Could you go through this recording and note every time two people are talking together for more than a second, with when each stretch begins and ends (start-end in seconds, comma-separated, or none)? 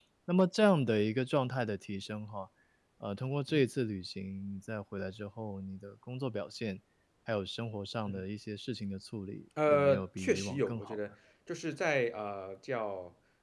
9.7-11.0